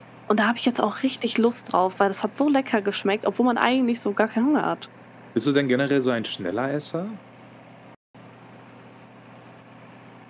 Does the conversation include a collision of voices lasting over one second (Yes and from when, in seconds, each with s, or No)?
No